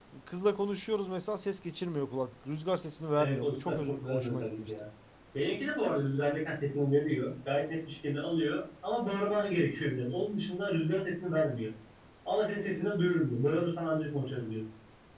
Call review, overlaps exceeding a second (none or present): present